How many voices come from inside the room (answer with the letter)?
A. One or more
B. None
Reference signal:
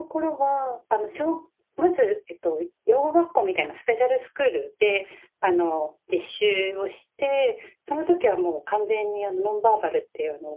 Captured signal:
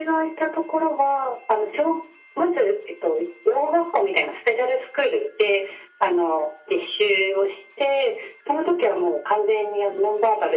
B